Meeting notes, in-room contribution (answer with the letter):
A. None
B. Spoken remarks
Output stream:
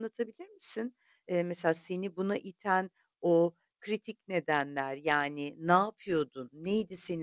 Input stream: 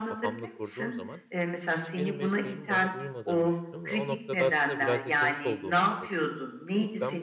B